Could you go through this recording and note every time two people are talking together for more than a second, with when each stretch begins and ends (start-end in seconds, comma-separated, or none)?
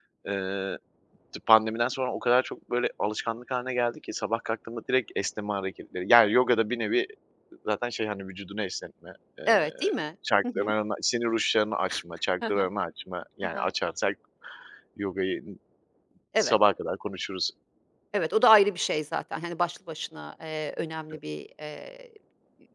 none